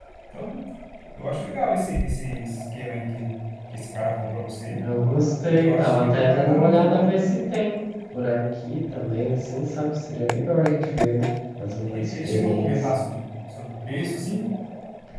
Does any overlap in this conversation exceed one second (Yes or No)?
Yes